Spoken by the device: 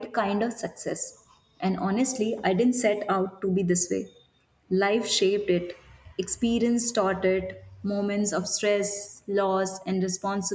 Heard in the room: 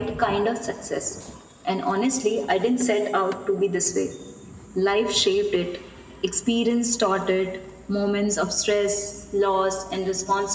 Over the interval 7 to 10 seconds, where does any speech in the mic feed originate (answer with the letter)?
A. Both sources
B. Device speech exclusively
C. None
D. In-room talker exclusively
B